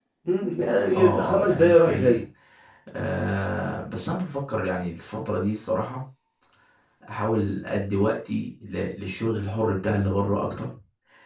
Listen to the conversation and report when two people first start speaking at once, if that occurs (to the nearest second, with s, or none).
1 s